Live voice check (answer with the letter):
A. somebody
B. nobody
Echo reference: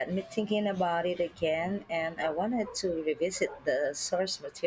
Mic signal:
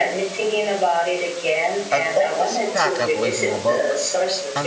A